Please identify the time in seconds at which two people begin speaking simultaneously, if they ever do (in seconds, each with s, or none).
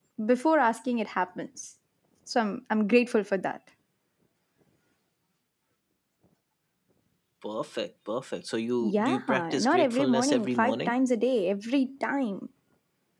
8.8 s